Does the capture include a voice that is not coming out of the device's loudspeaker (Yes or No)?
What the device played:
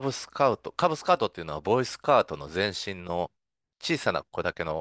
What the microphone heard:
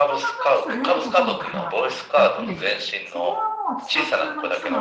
Yes